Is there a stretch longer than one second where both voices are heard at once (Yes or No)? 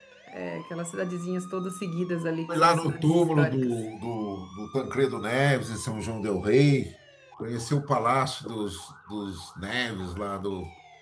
Yes